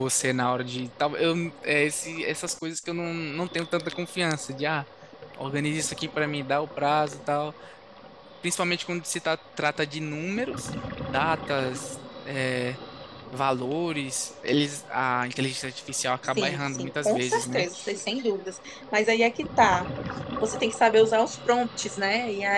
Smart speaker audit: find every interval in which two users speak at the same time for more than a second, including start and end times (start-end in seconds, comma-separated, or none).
16.4-17.6